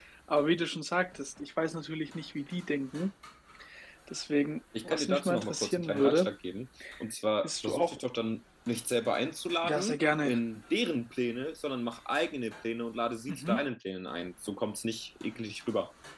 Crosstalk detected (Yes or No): Yes